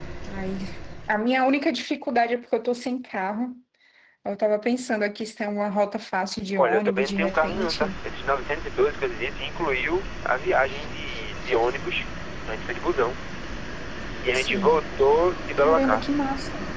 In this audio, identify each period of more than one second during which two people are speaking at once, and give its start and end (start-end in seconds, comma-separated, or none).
6.6-7.9